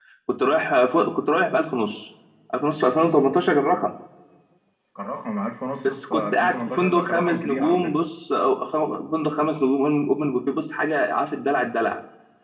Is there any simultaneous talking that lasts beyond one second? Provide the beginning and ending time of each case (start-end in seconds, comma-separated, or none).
6.1-7.9